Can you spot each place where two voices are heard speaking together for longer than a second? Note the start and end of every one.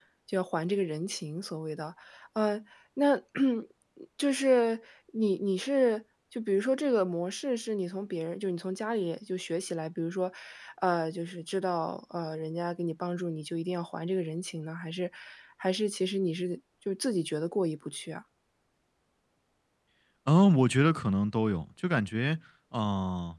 none

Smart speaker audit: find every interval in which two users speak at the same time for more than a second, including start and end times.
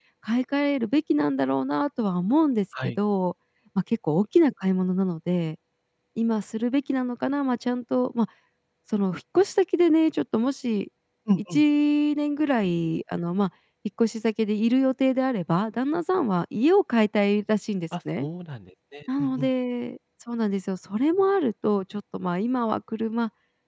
none

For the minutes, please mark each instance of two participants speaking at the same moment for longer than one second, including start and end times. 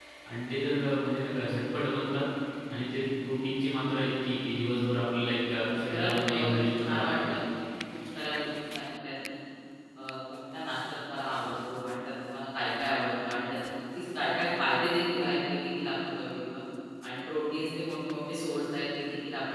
5.9-7.3

